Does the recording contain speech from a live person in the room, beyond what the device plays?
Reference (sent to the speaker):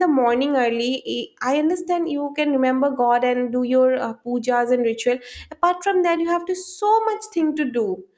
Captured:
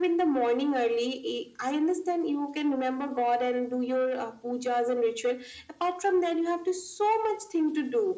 No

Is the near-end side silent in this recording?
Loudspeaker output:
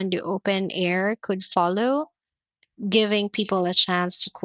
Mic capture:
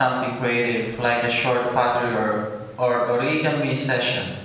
No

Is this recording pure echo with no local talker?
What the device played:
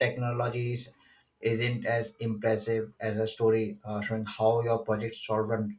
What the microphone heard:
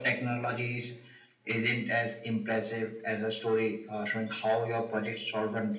Yes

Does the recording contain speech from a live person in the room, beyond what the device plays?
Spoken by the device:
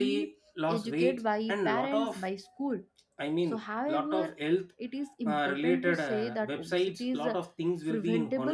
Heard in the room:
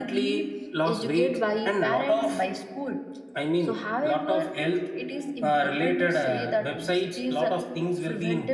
No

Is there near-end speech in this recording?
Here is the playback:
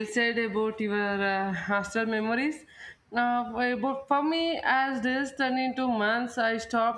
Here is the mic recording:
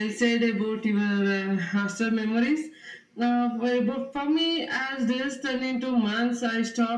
No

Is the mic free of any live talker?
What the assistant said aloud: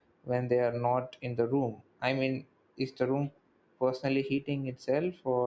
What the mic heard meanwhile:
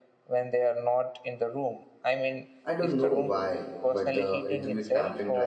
No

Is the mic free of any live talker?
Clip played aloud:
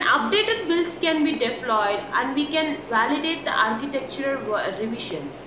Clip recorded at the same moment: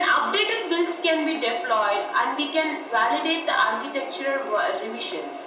Yes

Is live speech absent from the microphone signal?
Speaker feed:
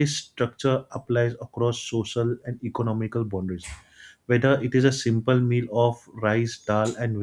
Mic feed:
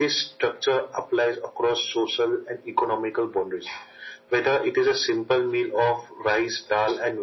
Yes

